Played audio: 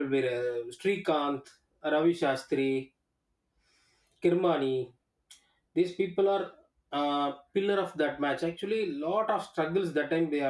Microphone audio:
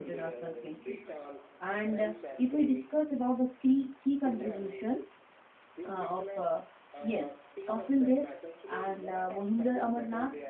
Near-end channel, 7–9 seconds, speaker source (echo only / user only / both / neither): both